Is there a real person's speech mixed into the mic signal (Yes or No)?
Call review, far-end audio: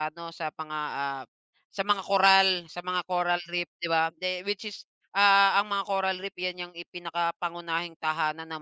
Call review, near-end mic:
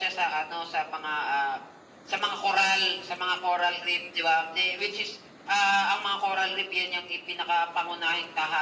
No